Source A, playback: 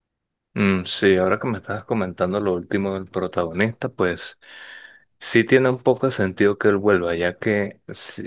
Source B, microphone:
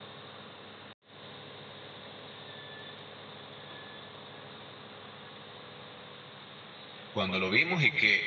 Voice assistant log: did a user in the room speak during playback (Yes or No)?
Yes